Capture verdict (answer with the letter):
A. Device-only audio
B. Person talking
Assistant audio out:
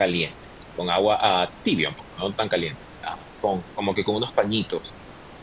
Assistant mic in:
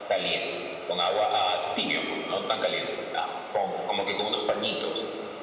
A